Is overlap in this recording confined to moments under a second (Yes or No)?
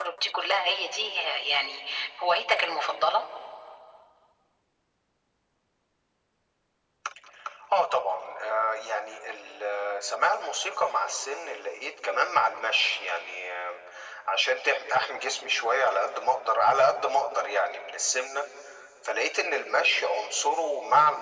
Yes